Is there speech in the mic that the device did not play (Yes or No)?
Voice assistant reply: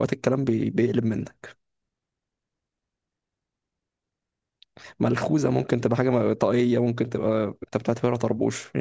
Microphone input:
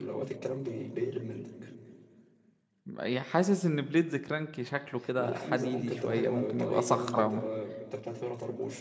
Yes